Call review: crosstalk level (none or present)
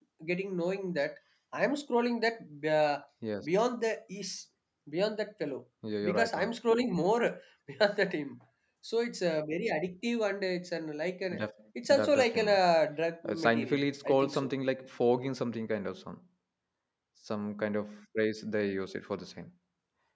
present